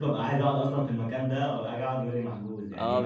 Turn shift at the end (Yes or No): Yes